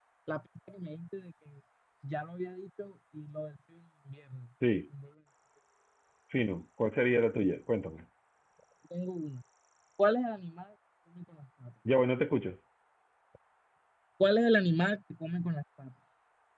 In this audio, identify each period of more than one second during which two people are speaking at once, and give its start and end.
none

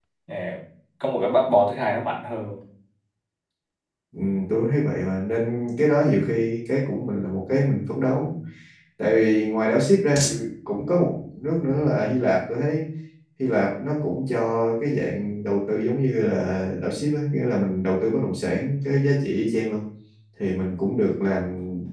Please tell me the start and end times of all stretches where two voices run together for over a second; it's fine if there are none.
none

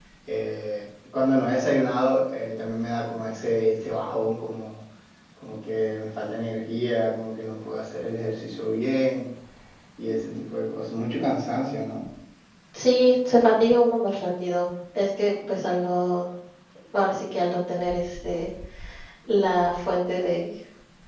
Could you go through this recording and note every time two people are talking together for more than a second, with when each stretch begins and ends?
none

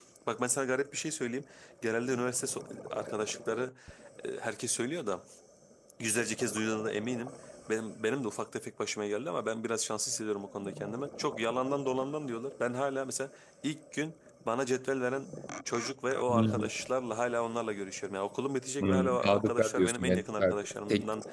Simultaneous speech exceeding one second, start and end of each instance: 18.8-20.5

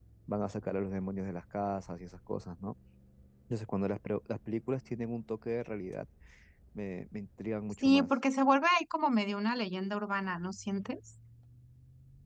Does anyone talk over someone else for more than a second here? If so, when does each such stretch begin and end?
none

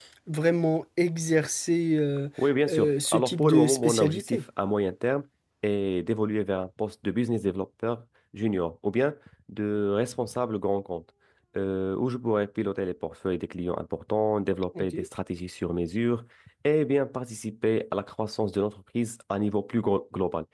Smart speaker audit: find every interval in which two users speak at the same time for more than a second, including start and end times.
2.7-4.4

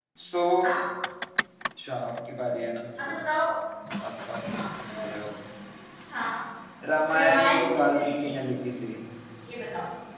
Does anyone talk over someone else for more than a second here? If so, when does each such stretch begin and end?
7.1-8.3

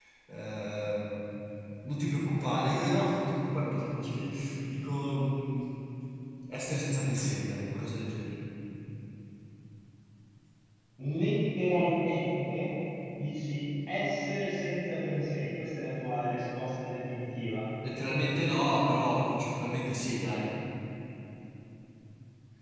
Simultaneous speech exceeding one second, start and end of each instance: none

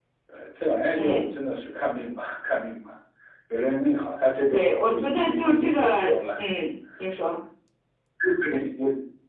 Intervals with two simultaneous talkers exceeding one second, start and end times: 4.5-6.4

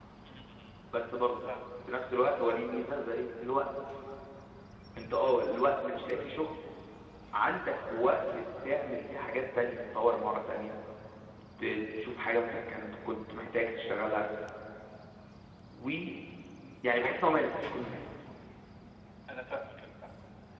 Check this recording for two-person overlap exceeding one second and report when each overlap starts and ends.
none

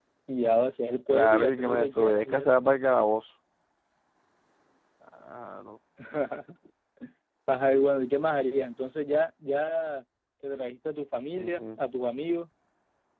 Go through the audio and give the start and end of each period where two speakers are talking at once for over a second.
1.1-2.5

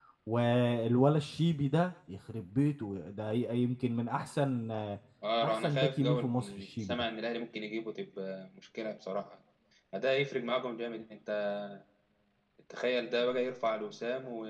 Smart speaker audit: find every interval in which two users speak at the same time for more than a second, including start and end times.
5.4-7.0

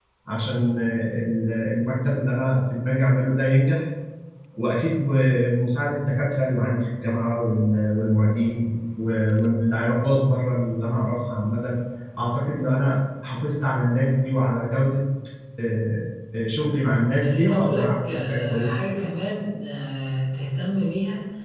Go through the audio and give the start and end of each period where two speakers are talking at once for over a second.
17.2-18.8

